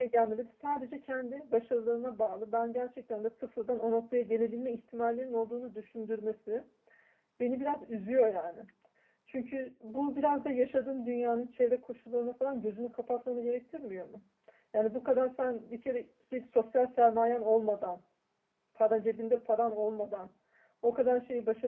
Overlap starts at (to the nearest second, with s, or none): none